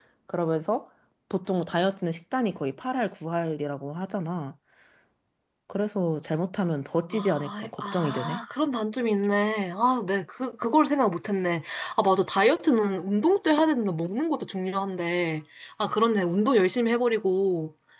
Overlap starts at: 7.1 s

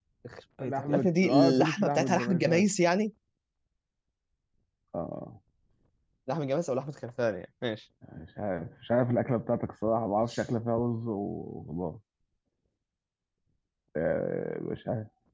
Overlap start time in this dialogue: 0.6 s

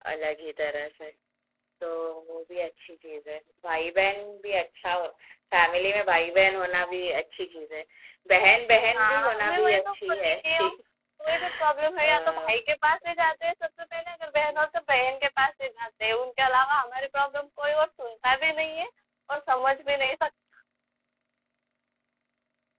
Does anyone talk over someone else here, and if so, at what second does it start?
9.0 s

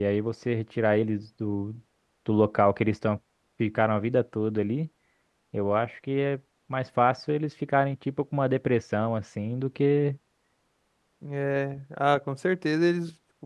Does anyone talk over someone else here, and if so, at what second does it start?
none

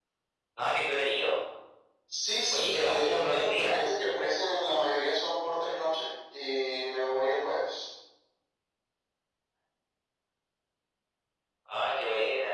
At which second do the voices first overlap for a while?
2.5 s

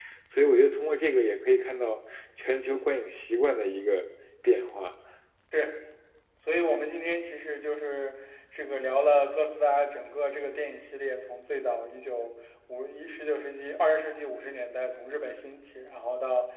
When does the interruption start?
none

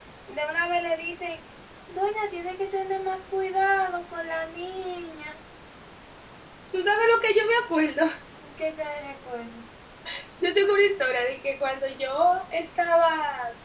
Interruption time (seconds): none

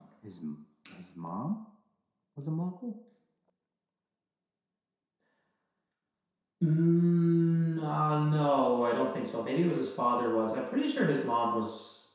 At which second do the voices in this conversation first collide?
none

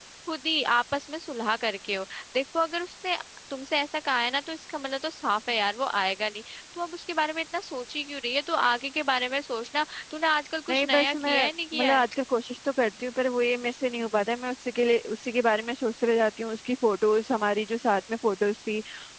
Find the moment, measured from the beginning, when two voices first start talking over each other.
10.7 s

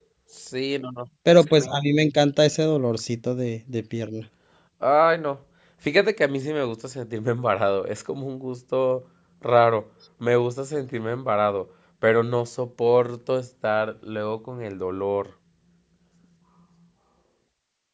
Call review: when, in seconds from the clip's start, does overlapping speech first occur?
none

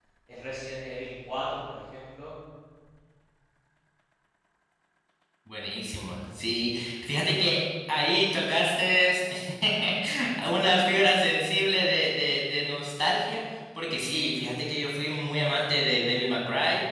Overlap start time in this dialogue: none

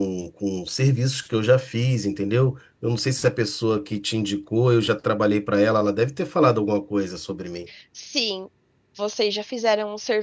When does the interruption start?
none

